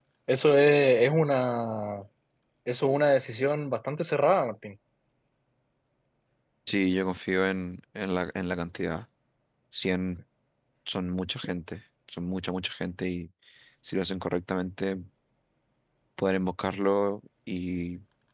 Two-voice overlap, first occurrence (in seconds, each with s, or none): none